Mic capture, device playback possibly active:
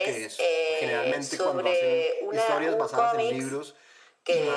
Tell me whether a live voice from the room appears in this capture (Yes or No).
Yes